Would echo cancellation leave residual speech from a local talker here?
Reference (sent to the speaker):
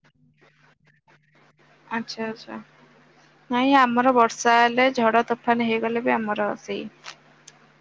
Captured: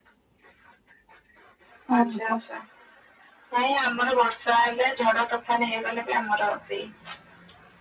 Yes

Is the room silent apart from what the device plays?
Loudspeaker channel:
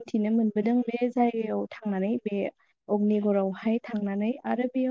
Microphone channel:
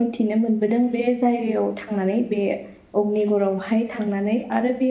Yes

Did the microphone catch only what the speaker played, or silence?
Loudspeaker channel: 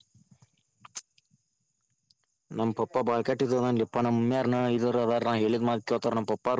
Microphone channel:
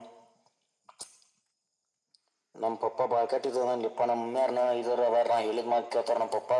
Yes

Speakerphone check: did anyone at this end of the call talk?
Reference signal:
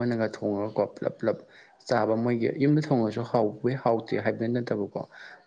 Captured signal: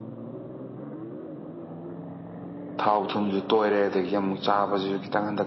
Yes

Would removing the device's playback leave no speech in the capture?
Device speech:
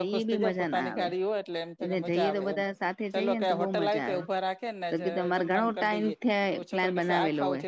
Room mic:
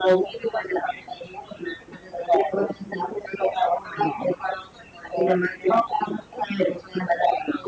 Yes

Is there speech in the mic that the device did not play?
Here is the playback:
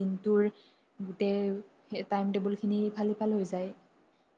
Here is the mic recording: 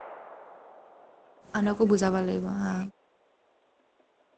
Yes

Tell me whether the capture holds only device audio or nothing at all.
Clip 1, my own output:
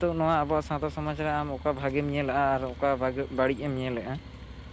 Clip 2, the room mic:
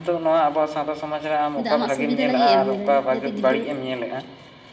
No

